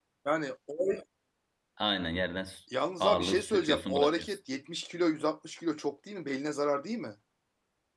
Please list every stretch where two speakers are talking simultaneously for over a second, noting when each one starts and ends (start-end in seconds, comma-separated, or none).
3.0-4.4